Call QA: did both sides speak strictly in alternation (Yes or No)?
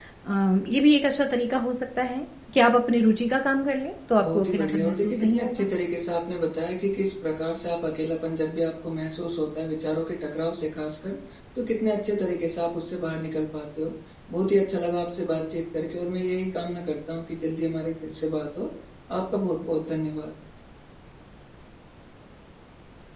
No